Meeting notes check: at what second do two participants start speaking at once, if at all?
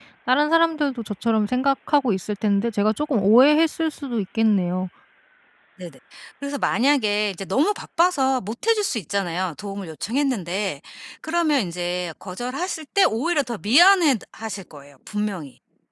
none

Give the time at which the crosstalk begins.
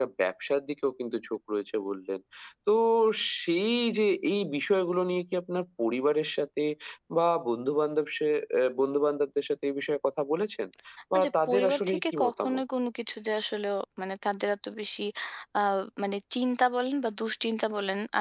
11.1 s

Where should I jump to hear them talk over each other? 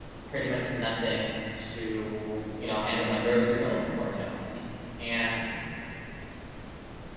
2.9 s

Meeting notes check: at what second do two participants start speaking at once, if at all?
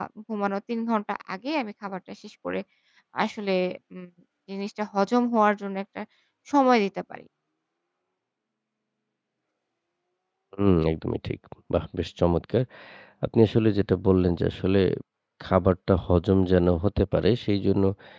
none

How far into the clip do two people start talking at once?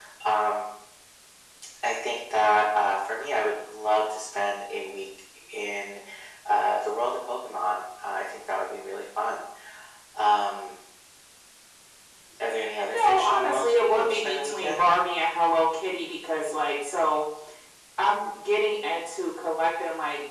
12.9 s

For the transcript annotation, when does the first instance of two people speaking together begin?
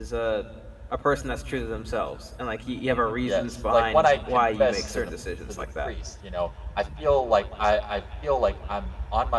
3.3 s

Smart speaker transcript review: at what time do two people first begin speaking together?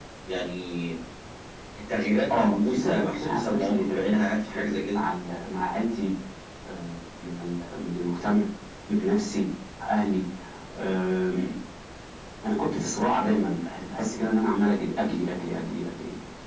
2.3 s

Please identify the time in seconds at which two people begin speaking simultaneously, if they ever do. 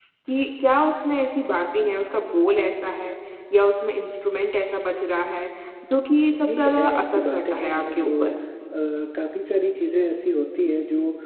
6.3 s

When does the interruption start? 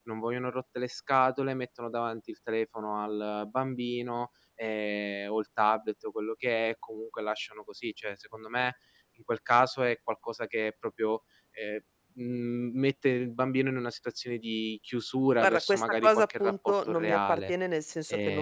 15.4 s

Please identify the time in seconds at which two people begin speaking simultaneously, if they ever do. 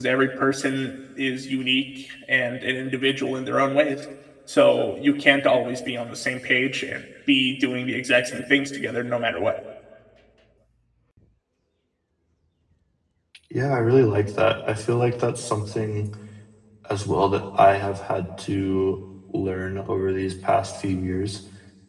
none

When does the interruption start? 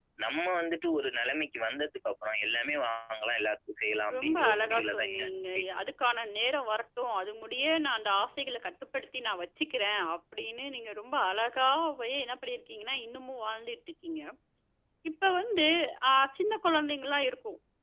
4.1 s

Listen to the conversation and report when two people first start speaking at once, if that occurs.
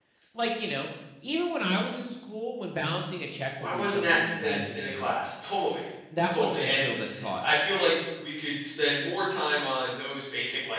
3.6 s

